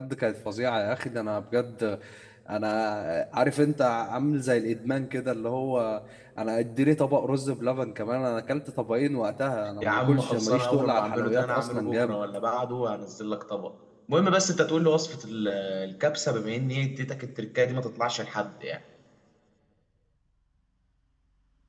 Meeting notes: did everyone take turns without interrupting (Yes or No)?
No